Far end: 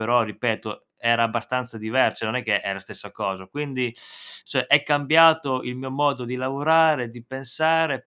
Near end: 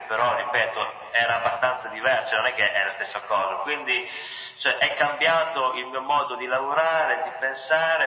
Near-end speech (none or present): none